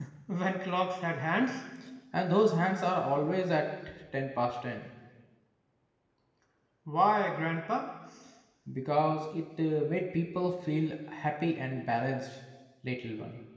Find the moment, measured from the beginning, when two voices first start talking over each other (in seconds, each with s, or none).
none